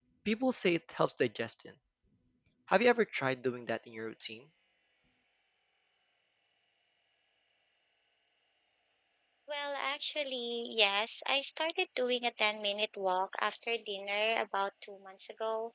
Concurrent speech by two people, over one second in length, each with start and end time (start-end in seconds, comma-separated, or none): none